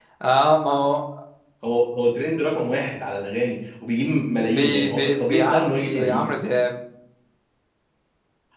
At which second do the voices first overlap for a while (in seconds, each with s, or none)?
4.6 s